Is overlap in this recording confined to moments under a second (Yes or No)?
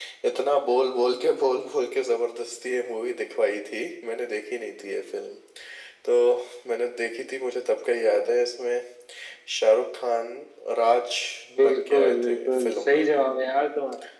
No